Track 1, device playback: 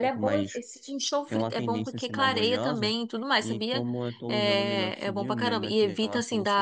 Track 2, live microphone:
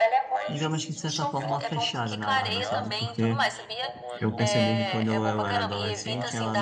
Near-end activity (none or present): present